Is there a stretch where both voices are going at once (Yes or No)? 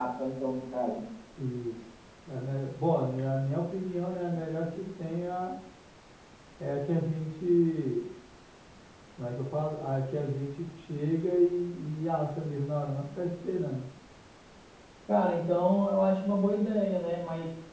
No